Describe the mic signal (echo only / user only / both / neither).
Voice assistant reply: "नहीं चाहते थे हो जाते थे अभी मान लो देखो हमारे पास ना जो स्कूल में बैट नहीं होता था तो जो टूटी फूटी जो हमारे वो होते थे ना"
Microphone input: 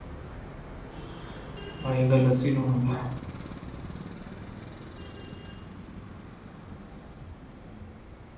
user only